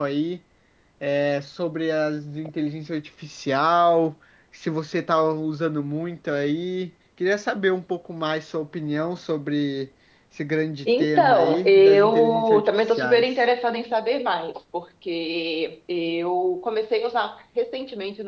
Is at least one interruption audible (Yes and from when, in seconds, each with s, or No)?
Yes, from 10.8 s